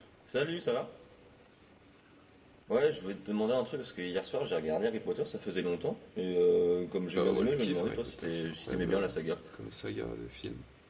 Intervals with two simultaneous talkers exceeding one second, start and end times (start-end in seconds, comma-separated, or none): 7.2-9.1